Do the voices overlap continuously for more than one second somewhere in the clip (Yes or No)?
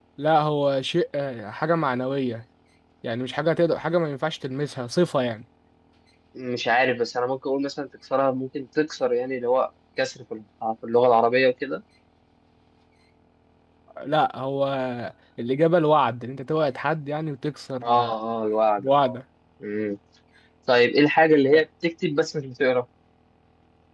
No